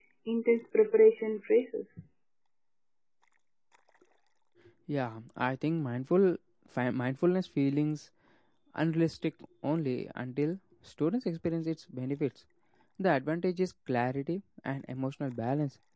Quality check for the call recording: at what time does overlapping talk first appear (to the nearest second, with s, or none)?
none